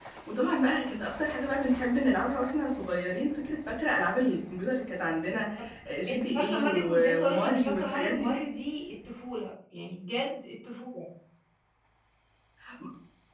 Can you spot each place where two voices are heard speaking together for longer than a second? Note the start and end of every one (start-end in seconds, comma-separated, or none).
6.1-8.4